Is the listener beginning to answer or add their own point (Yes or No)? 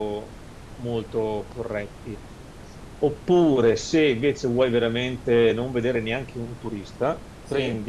No